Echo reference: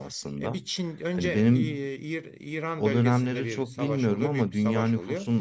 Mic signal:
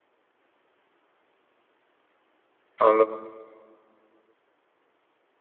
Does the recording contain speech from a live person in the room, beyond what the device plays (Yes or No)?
Yes